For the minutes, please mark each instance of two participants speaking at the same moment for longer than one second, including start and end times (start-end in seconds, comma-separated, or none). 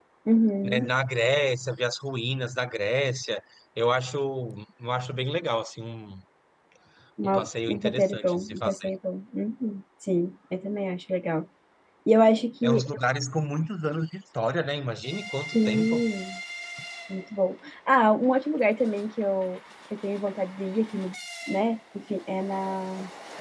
7.2-8.9